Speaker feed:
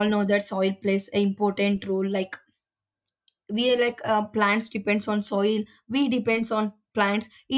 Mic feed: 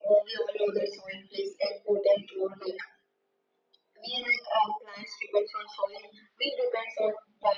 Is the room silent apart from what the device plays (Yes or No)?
Yes